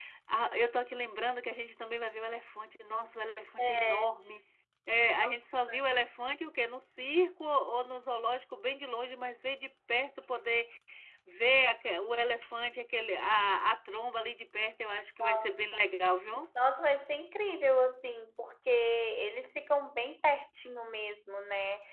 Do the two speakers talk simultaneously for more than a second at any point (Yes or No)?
No